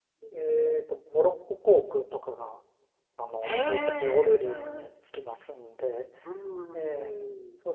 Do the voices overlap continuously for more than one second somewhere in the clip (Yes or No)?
Yes